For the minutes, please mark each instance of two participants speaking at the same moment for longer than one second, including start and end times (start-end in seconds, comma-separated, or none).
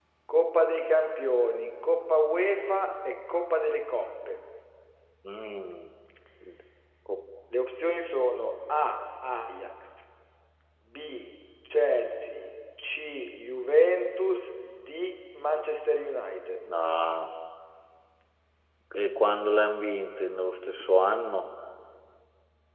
none